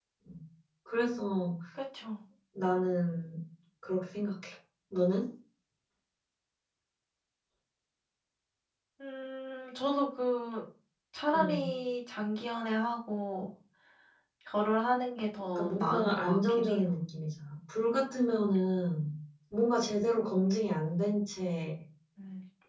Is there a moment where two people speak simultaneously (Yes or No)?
Yes